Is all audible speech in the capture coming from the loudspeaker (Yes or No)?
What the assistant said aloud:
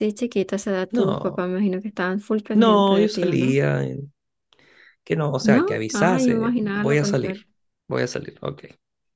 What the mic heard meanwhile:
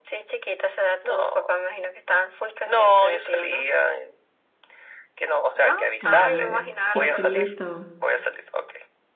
No